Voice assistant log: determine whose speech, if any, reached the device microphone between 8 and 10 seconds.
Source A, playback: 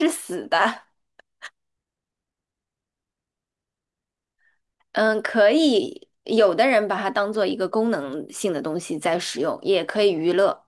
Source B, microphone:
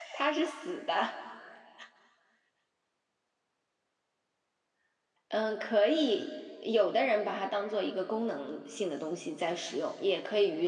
echo only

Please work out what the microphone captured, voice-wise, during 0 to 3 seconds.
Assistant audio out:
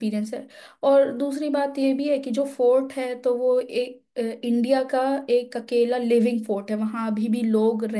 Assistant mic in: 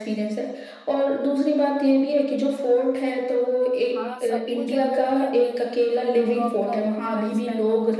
echo only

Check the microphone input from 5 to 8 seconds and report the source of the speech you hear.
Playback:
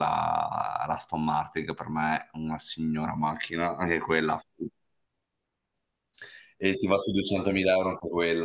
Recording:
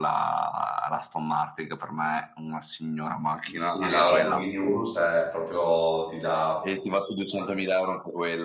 both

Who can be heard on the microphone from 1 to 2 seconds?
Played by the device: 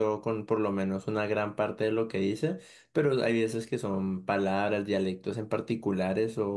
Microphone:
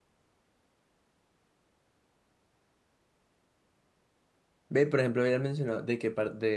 neither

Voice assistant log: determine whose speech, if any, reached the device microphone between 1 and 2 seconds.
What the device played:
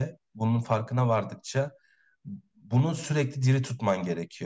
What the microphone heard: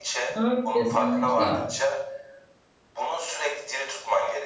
both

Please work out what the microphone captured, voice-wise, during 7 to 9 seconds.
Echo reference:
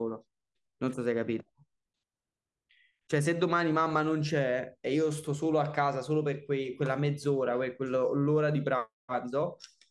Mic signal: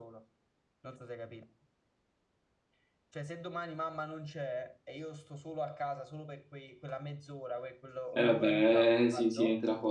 both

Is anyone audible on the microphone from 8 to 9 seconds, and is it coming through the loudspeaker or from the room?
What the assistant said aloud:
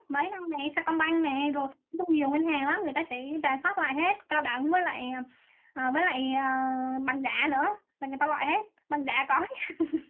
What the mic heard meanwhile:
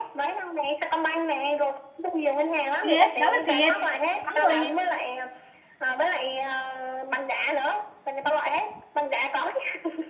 echo only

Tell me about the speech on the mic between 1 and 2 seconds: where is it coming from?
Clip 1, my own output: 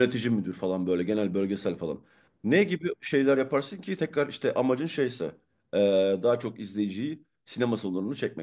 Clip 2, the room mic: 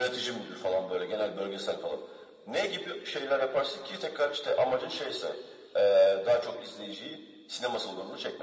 echo only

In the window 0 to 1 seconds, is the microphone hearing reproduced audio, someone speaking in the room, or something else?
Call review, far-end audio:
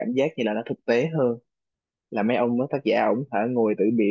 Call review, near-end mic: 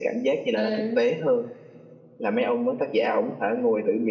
both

